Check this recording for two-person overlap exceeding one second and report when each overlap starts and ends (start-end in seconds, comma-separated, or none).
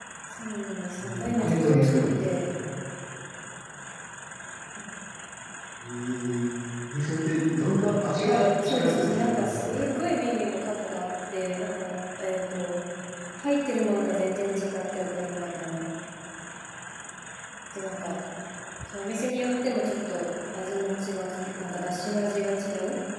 1.0-2.4, 8.2-10.0